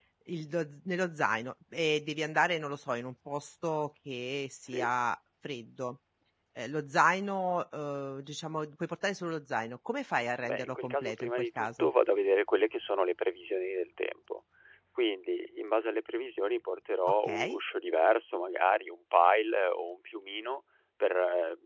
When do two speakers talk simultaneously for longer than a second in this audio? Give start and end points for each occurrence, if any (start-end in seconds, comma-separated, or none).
10.4-11.9